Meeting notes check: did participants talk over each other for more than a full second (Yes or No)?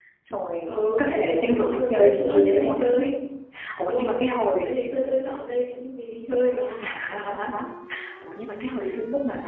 Yes